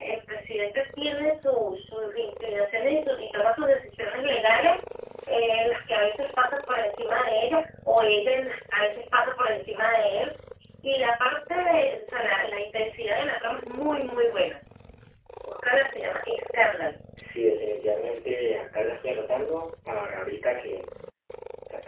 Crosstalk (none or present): none